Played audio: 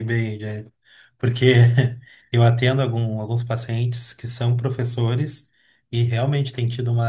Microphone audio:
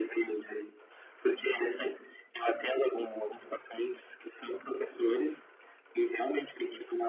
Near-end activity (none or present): none